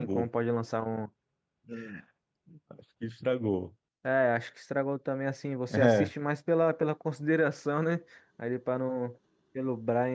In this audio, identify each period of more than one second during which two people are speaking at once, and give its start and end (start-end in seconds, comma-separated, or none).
none